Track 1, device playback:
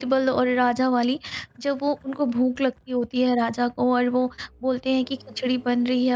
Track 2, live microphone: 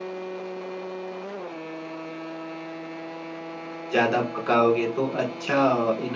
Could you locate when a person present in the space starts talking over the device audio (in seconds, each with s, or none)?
3.9 s